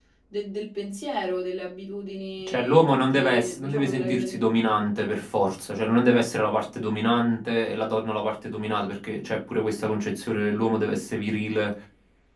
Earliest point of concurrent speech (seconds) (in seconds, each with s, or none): 2.5 s